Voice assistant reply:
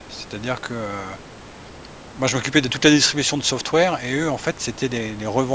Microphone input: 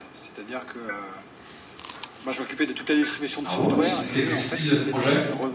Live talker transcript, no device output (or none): Ah ouais? C'était c'était quel style de projet?